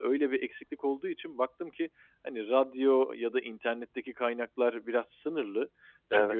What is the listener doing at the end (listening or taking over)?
listening